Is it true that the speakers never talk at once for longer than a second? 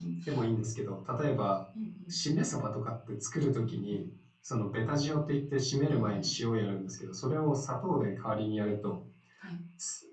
Yes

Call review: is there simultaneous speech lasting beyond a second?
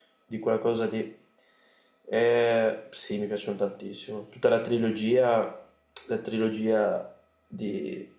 No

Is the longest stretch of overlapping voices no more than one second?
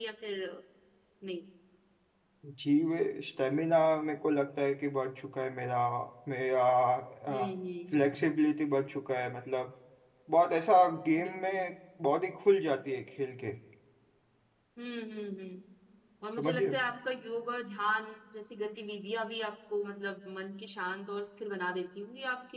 Yes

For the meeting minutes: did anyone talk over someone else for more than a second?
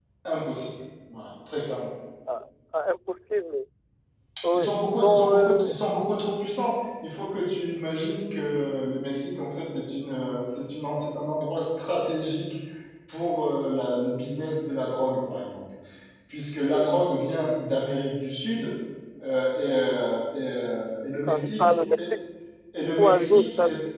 Yes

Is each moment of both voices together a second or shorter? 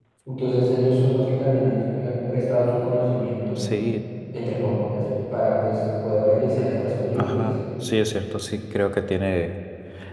Yes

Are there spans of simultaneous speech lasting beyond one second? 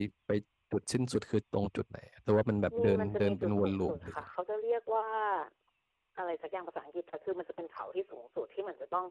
Yes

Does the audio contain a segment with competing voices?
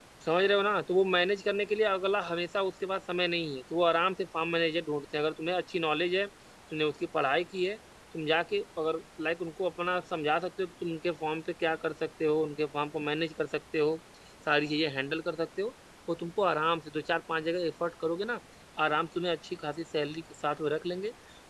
No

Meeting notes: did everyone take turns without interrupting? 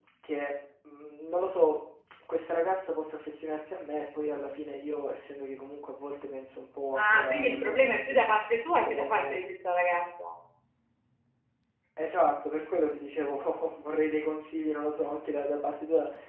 No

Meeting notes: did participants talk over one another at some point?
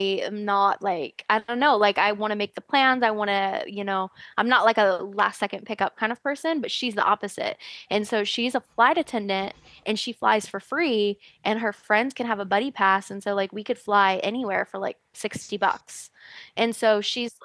No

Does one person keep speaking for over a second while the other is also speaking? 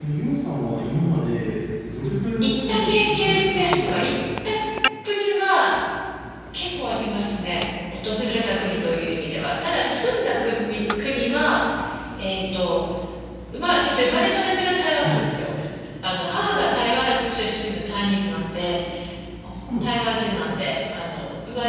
Yes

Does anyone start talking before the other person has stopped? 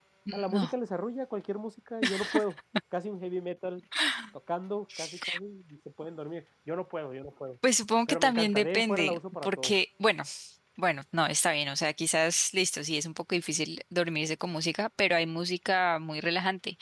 Yes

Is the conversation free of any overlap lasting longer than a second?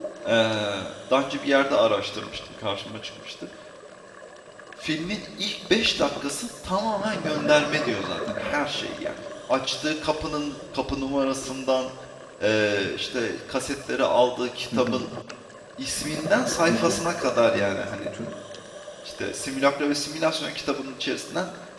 Yes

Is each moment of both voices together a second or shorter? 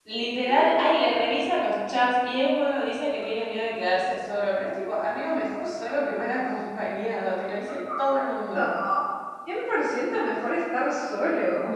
Yes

